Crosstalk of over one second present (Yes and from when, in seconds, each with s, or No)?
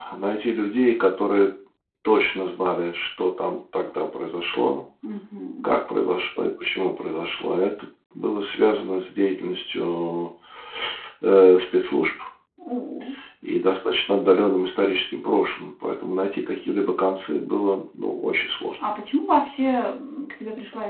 No